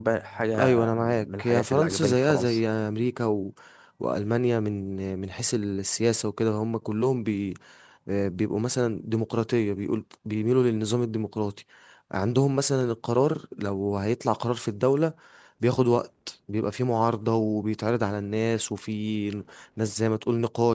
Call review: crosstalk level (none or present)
present